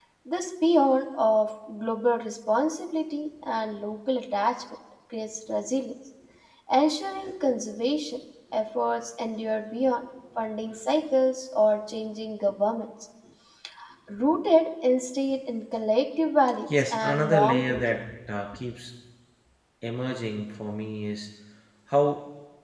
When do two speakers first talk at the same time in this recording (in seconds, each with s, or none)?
16.7 s